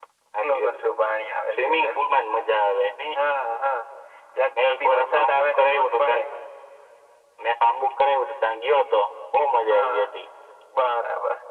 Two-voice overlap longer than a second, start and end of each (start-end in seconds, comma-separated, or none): 4.6-6.2